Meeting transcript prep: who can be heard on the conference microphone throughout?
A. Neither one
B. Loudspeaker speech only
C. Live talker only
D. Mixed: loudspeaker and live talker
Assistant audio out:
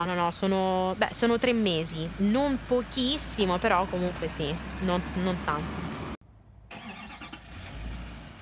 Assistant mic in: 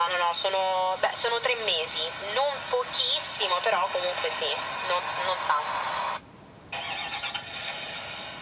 B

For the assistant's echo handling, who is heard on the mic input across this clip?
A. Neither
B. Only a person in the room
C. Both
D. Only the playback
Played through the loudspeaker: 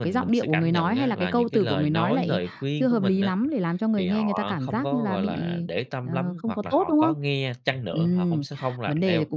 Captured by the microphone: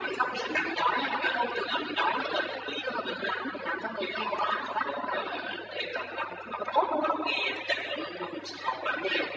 D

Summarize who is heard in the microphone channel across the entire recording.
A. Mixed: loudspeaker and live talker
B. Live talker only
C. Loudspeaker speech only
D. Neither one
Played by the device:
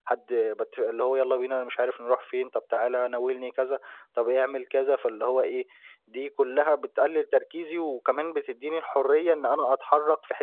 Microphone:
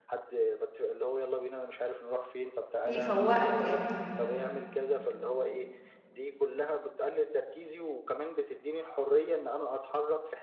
A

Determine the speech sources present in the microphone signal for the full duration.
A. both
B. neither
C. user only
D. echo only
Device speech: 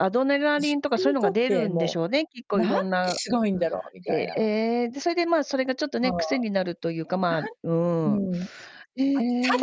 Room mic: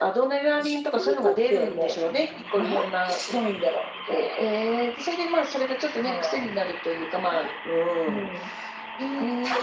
D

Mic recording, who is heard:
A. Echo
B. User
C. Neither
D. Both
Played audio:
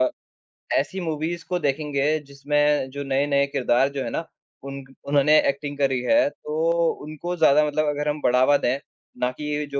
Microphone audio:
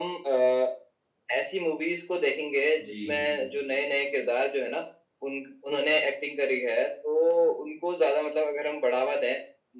D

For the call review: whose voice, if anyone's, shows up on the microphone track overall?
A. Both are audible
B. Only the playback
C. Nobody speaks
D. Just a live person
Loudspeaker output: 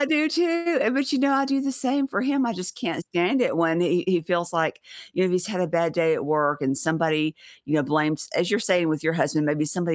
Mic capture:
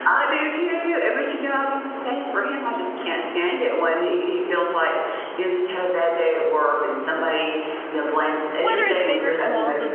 A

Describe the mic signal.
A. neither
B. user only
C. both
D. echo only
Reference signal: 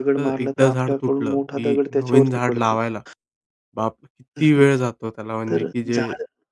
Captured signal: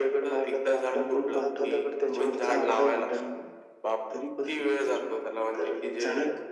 C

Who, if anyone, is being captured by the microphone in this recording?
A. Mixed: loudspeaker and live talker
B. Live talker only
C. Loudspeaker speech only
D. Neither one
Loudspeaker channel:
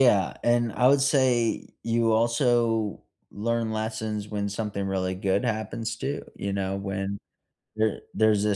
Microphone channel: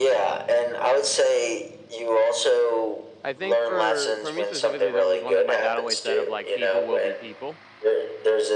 A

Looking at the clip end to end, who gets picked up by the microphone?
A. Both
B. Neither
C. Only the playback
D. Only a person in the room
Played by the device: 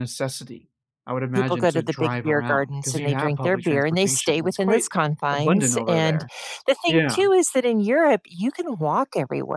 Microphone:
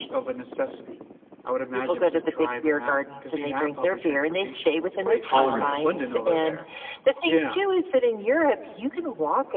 A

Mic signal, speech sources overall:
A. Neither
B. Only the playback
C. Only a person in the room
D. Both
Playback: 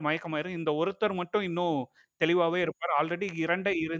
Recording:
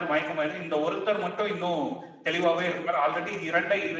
B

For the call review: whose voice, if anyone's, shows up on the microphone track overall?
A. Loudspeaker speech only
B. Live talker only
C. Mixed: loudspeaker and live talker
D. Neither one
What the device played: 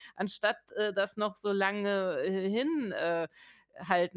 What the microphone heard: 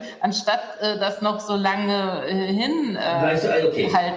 C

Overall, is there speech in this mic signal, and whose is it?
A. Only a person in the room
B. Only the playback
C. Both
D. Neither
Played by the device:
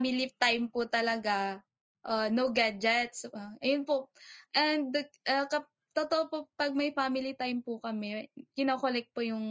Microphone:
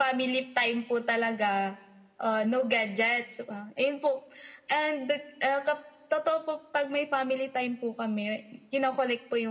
B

